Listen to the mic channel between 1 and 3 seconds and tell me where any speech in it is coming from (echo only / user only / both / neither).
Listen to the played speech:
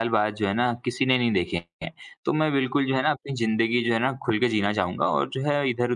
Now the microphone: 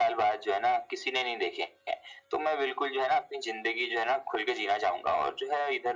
echo only